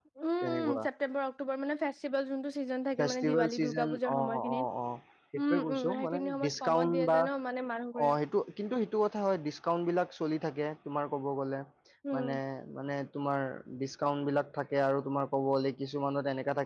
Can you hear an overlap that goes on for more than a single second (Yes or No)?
Yes